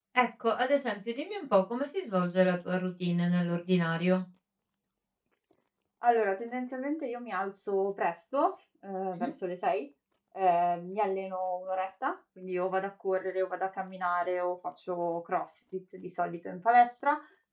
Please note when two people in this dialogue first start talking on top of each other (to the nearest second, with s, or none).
none